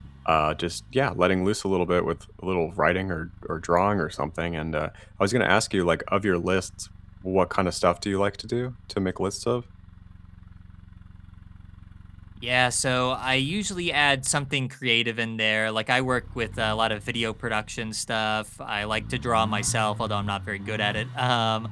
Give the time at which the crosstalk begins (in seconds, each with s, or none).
none